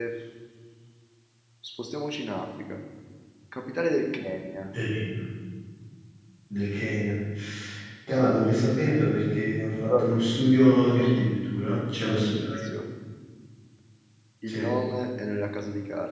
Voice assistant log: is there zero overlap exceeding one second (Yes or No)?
No